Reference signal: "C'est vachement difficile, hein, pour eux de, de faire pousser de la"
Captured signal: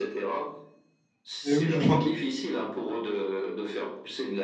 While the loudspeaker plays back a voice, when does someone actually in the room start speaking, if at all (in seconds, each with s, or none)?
1.4 s